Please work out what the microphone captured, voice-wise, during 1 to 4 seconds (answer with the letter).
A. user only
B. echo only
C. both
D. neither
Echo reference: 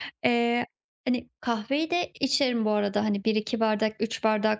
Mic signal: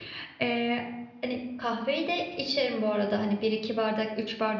B